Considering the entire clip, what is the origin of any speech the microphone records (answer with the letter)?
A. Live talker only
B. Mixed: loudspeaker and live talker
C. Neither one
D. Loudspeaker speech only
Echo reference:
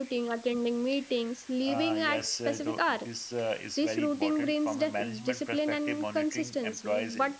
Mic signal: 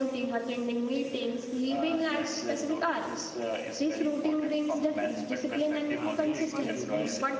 B